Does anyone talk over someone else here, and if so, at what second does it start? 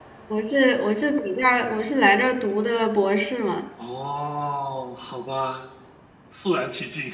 none

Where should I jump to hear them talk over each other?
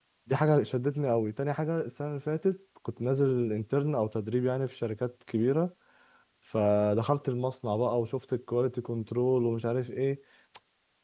none

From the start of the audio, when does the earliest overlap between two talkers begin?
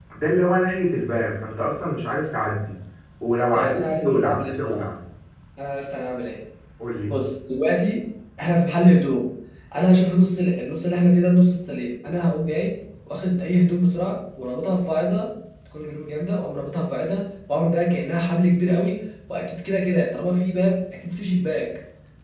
4 s

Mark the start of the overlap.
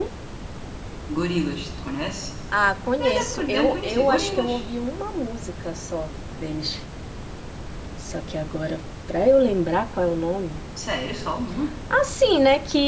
3 s

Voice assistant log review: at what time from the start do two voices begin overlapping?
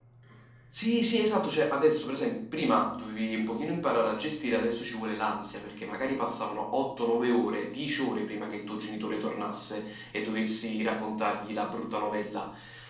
none

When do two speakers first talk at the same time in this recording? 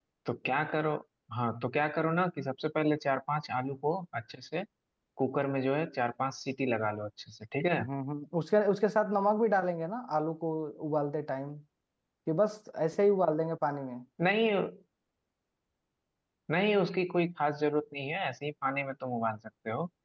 none

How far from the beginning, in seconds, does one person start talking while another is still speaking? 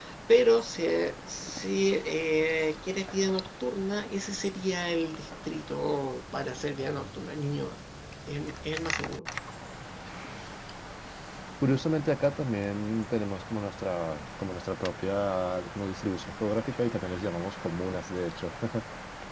none

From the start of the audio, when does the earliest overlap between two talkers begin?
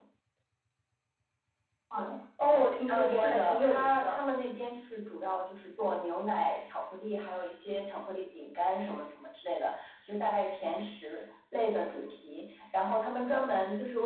3 s

